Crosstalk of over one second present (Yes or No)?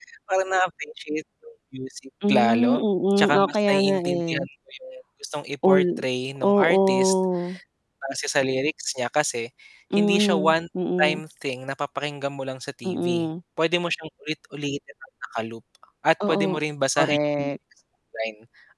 Yes